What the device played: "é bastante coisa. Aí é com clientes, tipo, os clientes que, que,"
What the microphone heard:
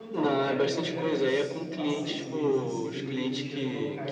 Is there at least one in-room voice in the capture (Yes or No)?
Yes